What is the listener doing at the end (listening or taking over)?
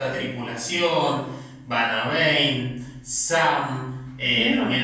listening